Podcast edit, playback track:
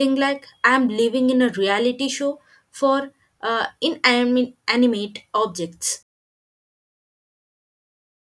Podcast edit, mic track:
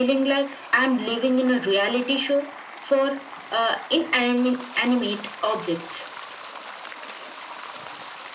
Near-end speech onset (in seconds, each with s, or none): none